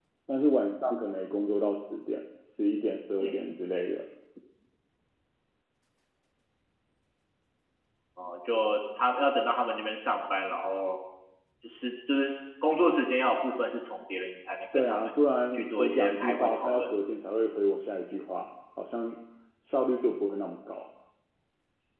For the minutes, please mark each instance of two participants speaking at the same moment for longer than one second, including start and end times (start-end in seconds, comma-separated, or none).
15.5-16.9